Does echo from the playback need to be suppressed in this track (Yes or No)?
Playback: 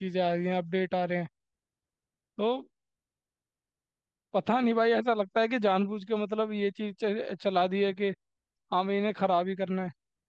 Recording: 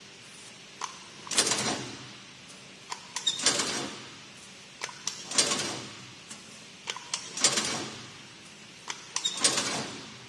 No